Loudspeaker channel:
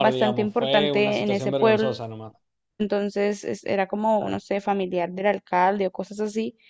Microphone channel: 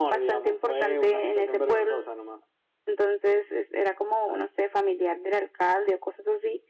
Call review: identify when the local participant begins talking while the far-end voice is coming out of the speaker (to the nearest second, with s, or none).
none